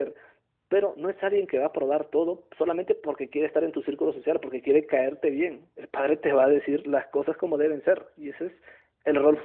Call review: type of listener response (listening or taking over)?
taking over